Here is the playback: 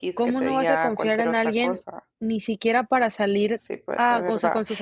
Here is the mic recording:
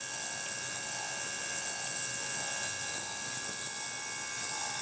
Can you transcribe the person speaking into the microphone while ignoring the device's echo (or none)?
none